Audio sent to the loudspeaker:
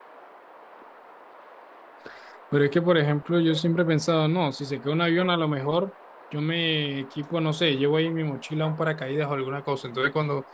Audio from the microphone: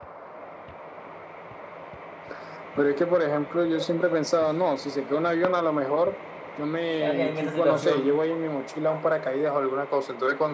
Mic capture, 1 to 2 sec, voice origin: neither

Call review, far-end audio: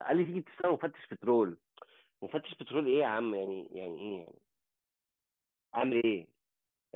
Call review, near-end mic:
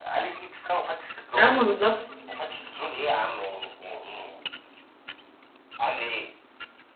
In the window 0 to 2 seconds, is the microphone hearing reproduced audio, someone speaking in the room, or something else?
both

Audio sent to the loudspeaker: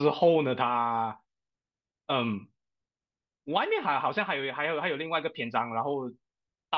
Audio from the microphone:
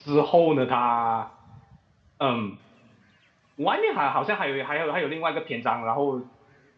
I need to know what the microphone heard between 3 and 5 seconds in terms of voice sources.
echo only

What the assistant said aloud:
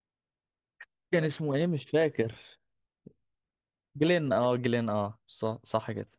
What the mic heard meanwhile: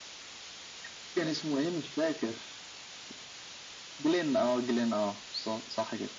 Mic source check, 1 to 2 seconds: echo only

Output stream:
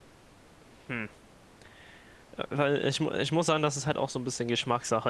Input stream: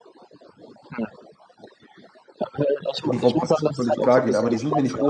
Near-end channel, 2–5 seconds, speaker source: both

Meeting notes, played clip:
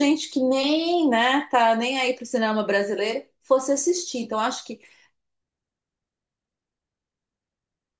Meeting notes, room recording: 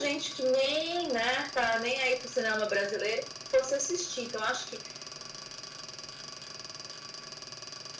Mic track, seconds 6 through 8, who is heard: neither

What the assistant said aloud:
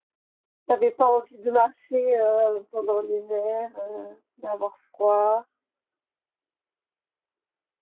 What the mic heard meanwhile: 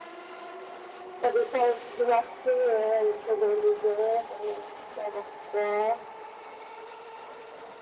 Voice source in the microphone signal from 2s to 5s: echo only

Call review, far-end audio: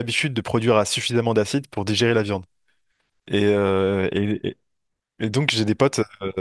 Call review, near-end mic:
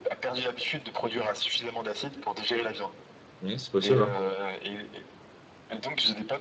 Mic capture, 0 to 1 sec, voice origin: echo only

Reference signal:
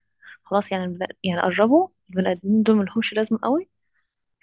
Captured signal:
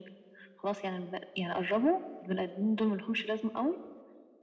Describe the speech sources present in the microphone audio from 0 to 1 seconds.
echo only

